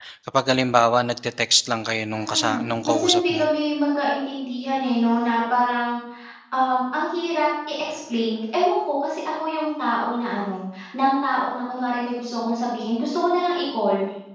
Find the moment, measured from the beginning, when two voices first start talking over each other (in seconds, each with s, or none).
2.1 s